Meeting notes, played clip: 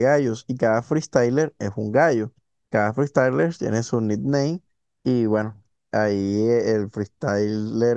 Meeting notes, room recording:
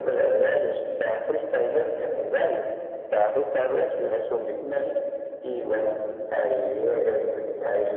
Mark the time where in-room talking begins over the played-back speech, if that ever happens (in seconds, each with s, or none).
none